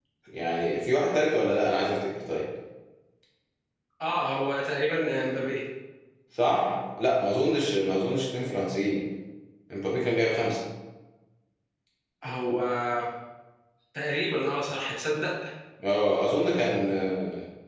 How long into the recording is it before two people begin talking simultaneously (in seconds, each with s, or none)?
none